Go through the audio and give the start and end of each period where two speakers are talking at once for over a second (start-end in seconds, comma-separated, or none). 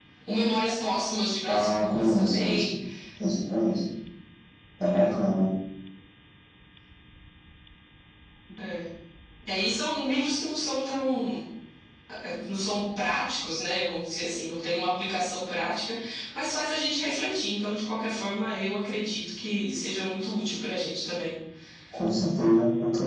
1.5-2.7